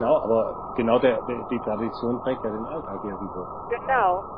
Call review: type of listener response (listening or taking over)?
taking over